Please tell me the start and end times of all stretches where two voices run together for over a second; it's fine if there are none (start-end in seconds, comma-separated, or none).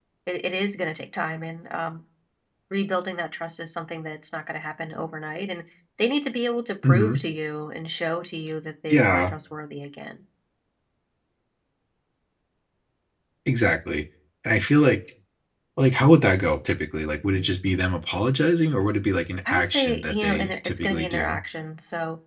19.4-21.4